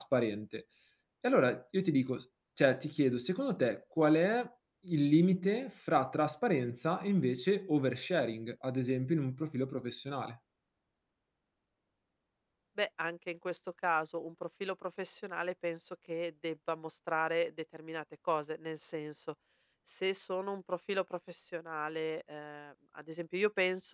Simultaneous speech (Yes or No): No